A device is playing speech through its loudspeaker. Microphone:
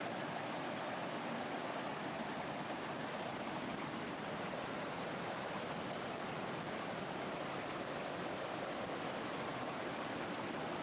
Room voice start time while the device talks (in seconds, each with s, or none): none